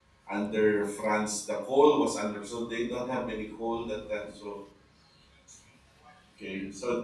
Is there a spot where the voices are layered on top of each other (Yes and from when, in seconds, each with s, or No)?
No